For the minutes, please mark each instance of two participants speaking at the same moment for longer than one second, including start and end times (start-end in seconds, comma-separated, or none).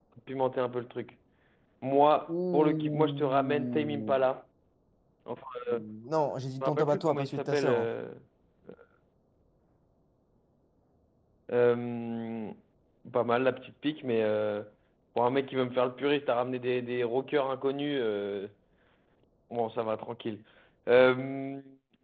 2.3-4.2, 6.7-7.9